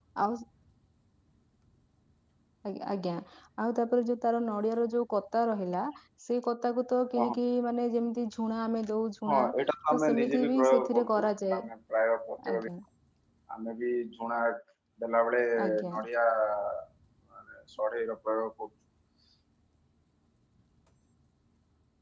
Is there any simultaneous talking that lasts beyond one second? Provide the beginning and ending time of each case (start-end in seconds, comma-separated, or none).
9.9-11.6